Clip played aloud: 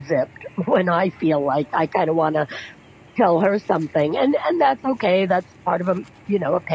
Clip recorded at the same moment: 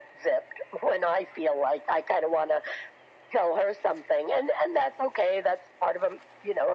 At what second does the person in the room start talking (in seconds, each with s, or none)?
none